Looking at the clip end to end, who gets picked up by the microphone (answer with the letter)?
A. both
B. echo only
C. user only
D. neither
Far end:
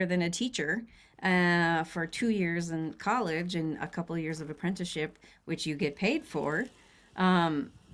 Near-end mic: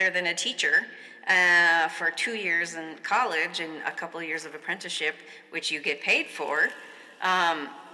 B